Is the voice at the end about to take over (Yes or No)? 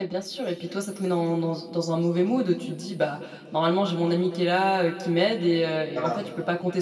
No